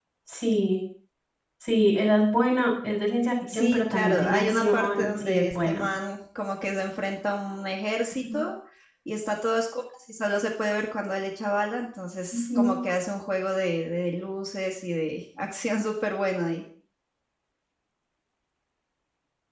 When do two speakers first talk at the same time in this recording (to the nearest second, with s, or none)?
4 s